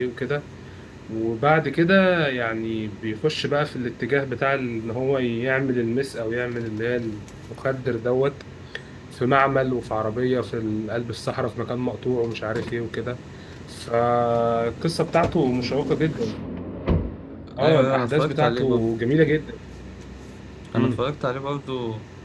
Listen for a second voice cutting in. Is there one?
Yes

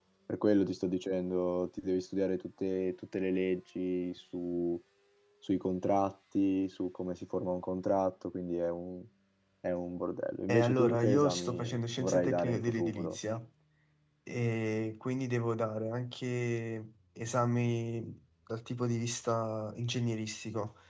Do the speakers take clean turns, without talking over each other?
No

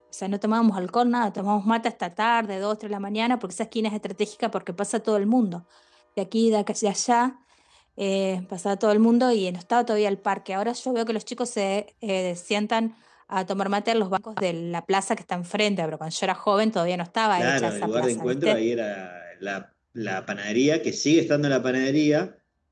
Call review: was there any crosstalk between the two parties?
Yes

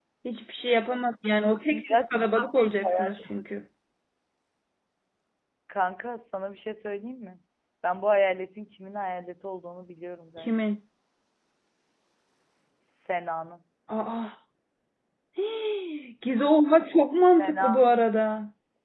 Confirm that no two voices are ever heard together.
No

